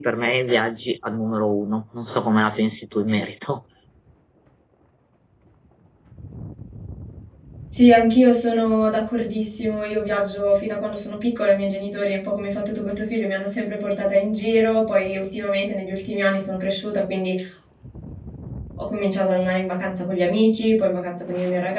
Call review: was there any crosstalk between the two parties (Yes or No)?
No